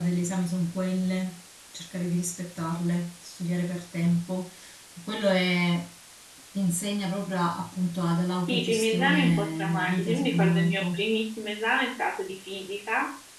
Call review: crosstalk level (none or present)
present